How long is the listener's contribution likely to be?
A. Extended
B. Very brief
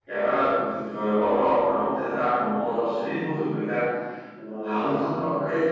B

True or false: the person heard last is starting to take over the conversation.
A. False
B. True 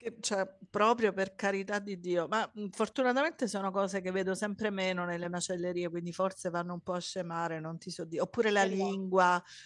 A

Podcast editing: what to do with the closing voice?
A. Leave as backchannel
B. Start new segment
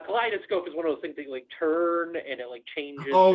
B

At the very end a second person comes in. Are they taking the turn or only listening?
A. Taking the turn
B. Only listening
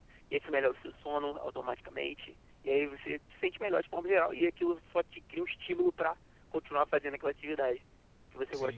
A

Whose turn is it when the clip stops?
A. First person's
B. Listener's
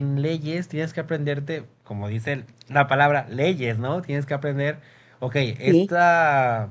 A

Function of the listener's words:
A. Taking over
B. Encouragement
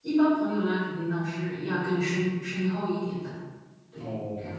A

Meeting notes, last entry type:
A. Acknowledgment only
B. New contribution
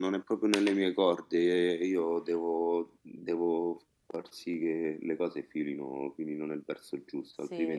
B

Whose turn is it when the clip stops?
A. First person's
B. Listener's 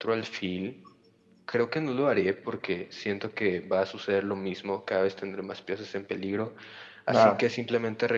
A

